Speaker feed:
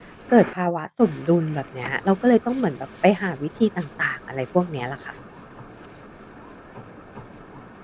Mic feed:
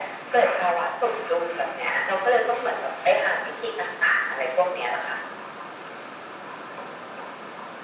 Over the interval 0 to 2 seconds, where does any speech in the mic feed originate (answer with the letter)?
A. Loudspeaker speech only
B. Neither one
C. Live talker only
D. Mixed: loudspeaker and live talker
A